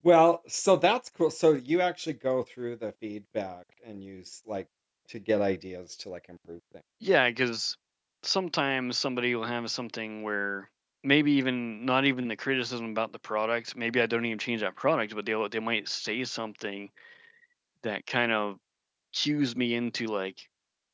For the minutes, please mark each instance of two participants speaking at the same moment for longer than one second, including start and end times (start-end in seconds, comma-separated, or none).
none